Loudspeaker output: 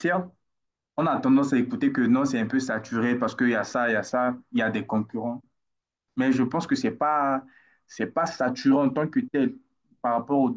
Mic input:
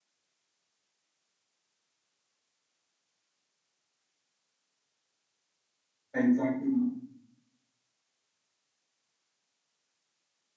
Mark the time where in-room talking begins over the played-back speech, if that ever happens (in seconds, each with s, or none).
6.1 s